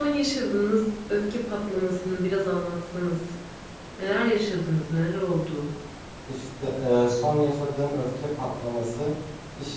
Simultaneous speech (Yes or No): No